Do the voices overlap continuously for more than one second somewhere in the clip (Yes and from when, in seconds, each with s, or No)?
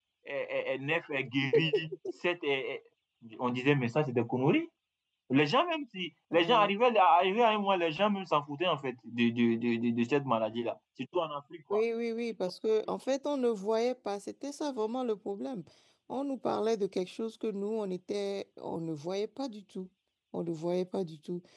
No